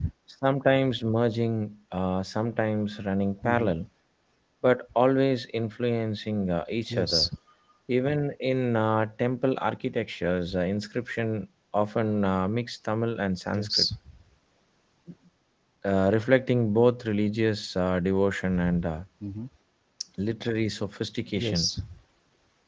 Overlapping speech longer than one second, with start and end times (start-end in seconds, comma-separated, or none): none